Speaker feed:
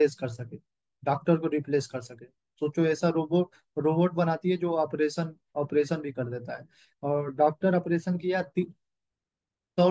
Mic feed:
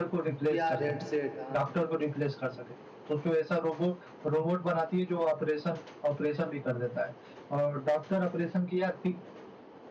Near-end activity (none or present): present